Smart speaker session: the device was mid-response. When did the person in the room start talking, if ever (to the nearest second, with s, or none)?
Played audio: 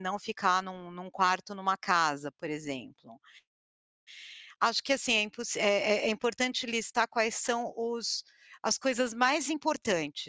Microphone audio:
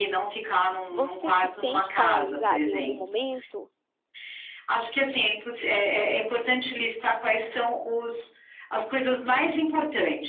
1 s